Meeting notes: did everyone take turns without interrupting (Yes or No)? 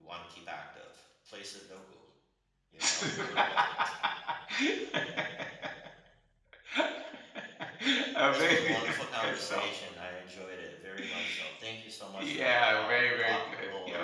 No